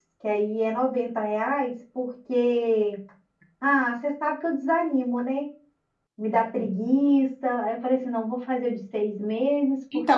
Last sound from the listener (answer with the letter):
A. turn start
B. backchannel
A